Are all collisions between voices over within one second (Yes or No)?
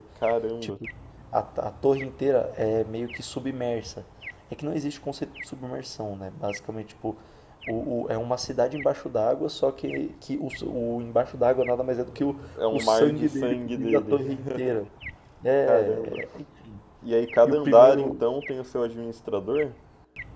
No